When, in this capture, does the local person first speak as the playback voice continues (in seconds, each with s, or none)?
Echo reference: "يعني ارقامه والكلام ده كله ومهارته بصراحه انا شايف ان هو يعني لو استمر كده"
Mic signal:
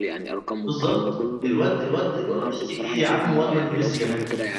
0.6 s